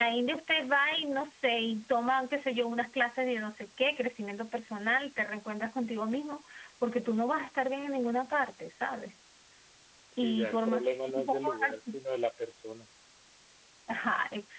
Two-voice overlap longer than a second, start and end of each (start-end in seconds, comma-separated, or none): 10.2-12.0